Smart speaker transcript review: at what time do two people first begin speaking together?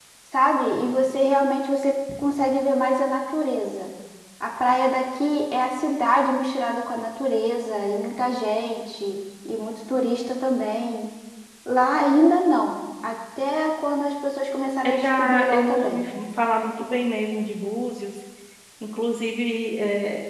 14.8 s

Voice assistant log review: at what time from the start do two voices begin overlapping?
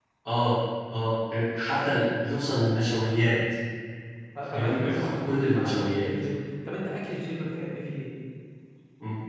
4.5 s

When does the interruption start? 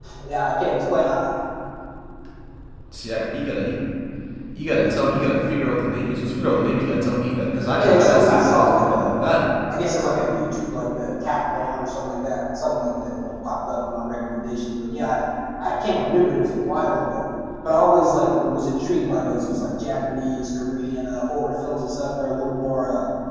7.7 s

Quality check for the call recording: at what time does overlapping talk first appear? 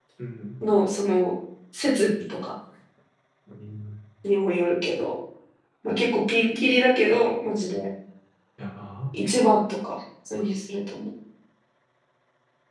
none

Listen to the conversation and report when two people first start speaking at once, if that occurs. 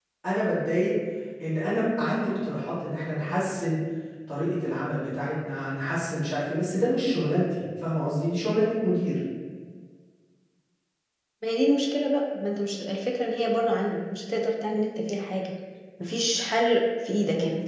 none

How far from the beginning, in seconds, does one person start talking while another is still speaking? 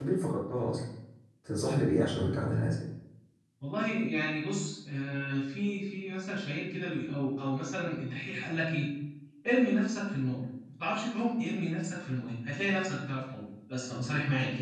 none

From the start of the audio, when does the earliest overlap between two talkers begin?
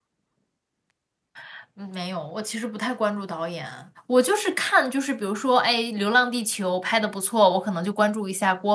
none

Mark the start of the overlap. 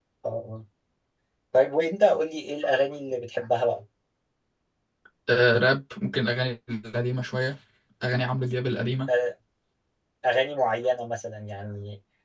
none

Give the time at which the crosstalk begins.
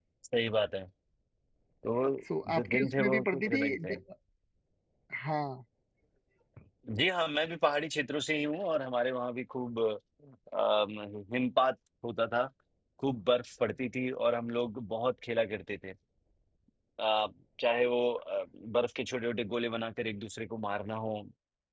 2.6 s

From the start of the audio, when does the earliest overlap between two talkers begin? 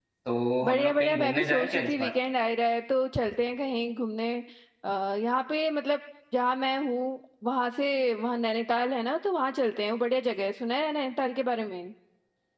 0.6 s

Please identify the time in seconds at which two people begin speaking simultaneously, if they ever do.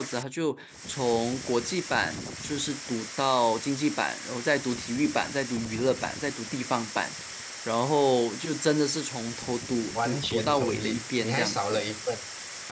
9.9 s

